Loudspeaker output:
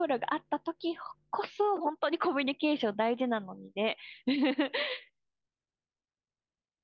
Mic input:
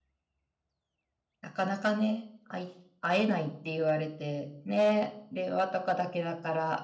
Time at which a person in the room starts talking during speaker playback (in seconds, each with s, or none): 1.4 s